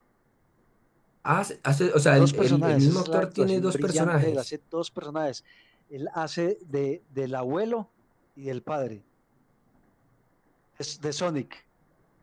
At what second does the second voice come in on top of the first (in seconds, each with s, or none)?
2.1 s